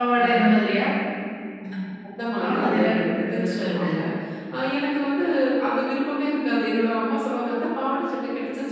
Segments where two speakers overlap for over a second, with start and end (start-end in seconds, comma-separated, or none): 2.4-3.8